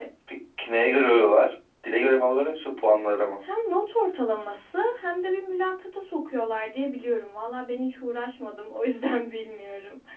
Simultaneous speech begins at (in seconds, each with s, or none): none